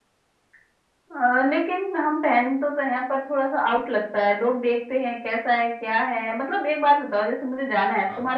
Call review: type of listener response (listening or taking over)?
listening